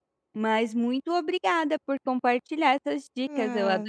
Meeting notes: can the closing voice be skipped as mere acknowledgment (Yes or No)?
No